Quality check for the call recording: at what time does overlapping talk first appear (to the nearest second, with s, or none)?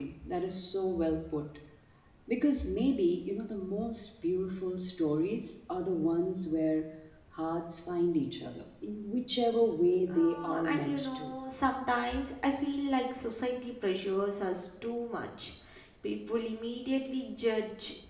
10 s